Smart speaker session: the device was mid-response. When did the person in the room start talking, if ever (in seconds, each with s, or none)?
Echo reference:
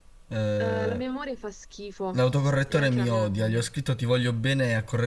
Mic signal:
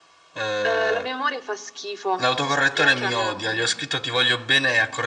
none